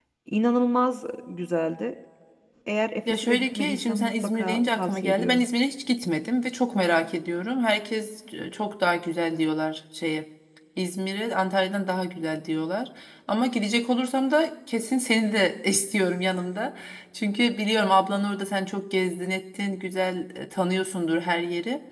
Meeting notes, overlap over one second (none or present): present